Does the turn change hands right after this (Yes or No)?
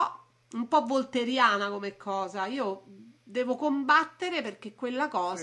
No